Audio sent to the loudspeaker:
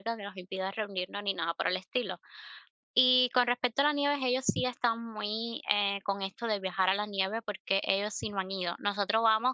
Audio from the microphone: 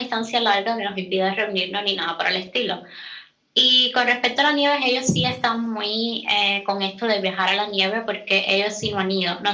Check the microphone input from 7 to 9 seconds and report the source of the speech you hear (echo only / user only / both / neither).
echo only